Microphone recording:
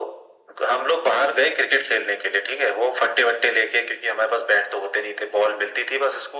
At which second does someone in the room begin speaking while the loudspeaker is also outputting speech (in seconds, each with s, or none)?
none